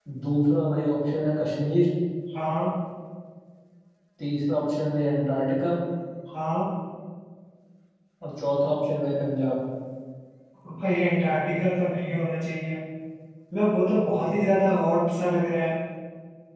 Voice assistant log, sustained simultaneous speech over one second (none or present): none